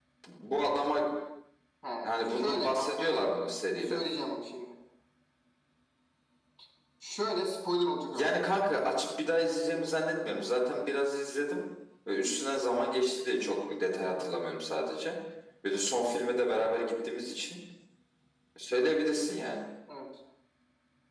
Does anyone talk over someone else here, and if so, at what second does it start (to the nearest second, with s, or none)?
2 s